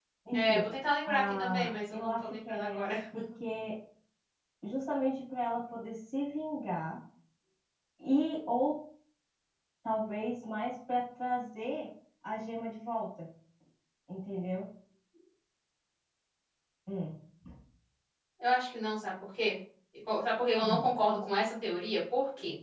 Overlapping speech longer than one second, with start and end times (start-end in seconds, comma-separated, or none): 1.1-3.0